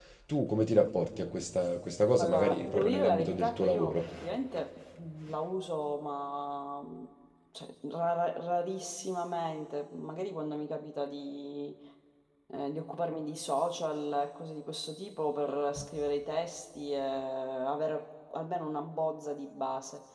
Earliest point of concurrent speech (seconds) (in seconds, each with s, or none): 2.2 s